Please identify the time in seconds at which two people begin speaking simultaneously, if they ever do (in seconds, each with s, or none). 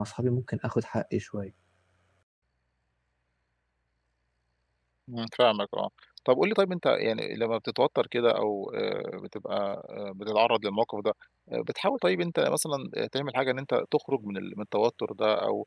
none